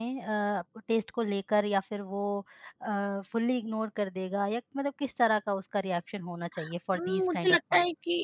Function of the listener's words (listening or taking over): taking over